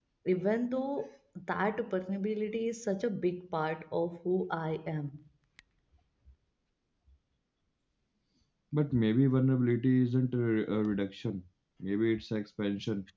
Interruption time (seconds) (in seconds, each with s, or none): none